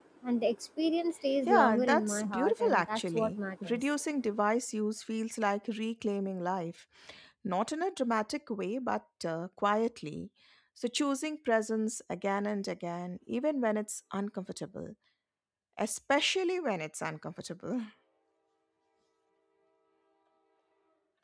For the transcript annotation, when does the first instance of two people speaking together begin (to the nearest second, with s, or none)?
1 s